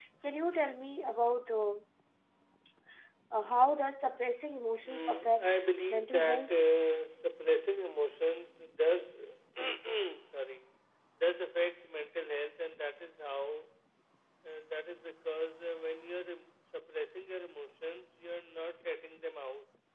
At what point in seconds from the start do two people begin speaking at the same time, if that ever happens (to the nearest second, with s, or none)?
5 s